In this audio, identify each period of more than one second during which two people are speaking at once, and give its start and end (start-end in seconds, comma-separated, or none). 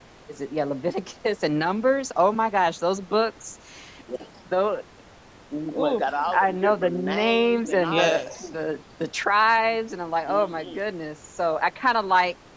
6.3-8.3